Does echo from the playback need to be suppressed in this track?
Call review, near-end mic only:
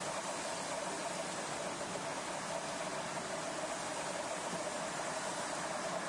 No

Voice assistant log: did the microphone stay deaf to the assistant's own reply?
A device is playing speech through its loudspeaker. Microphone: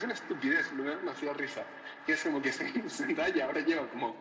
No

